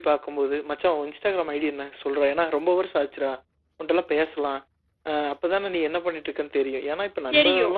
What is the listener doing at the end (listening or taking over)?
listening